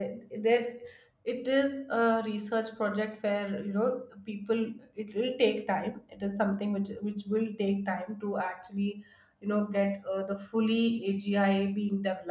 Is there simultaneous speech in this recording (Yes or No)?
No